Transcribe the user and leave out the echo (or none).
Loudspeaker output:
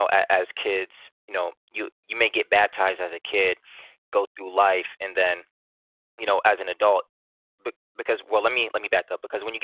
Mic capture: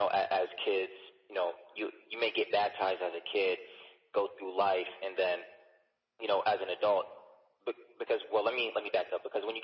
none